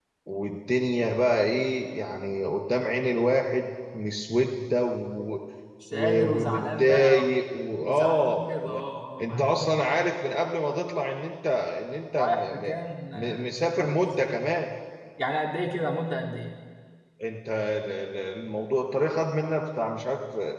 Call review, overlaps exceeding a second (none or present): present